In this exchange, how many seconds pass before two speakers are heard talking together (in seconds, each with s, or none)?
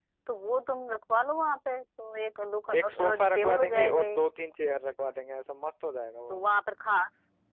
2.8 s